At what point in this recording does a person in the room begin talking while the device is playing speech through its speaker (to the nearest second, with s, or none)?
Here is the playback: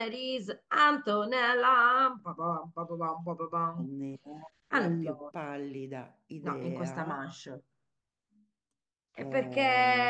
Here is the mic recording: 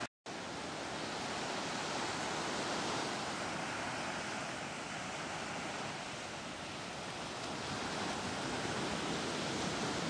none